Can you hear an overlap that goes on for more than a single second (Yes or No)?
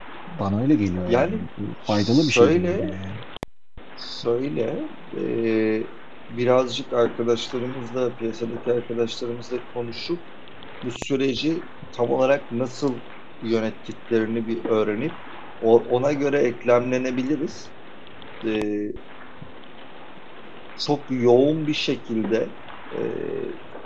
Yes